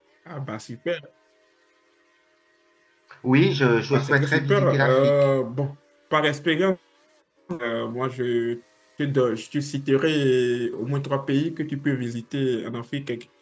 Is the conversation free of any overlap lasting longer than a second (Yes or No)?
No